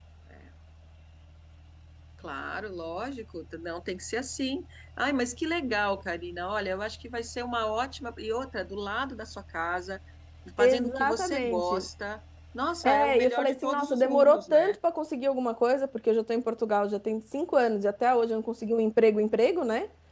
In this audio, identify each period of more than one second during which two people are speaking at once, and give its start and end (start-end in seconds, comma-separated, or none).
10.6-11.8, 12.8-14.8